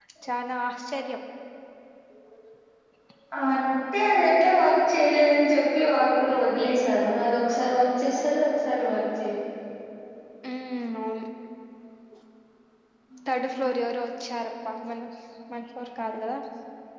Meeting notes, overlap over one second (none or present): none